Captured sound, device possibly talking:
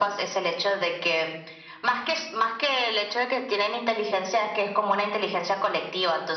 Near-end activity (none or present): none